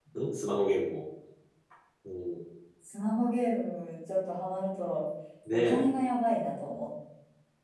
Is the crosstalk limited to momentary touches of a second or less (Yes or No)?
Yes